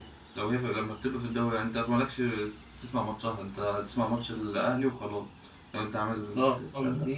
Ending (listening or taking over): taking over